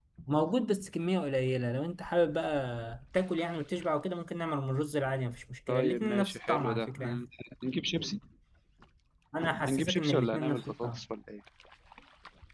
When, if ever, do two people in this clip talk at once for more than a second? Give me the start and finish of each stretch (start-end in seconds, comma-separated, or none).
5.7-7.2, 9.6-11.0